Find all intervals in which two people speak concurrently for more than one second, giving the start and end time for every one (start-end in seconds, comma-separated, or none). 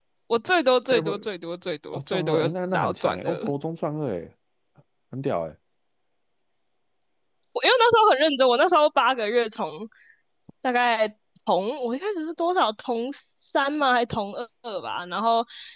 1.9-3.5